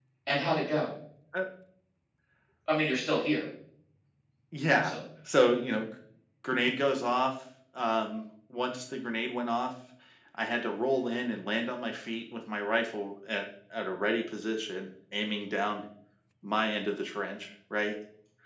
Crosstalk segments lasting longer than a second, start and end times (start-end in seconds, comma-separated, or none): none